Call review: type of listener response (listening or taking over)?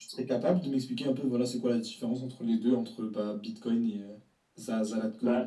taking over